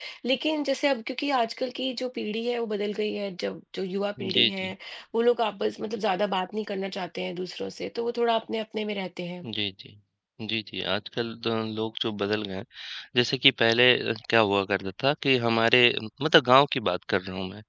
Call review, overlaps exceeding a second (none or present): none